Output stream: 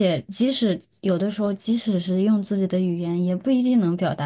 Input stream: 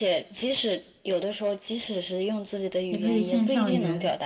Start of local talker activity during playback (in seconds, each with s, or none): 2.9 s